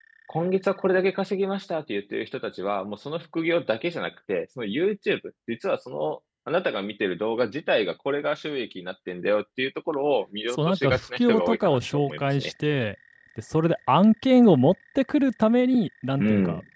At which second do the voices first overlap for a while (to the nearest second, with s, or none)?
11 s